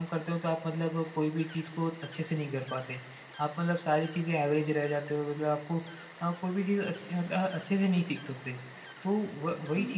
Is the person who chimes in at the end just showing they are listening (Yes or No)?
Yes